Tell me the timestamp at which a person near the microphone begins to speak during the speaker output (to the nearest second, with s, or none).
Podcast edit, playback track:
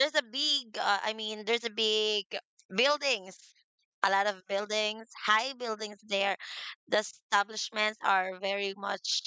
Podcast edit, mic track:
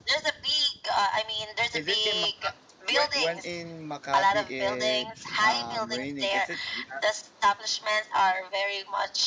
2 s